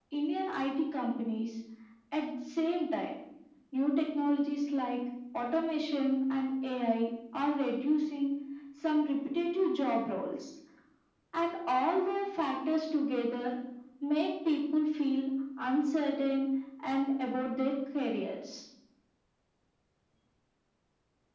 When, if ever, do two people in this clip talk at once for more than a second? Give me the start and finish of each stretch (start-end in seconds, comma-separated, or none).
none